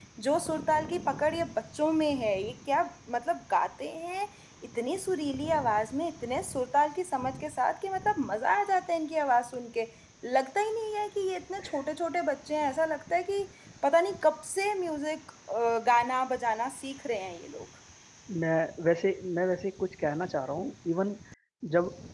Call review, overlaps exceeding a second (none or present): none